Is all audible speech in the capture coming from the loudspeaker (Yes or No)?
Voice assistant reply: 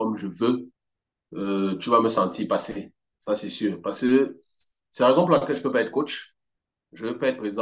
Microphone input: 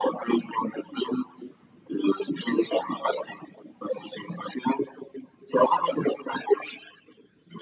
Yes